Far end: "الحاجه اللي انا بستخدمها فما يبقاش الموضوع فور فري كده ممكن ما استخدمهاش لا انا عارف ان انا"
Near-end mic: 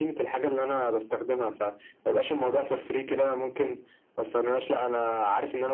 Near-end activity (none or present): none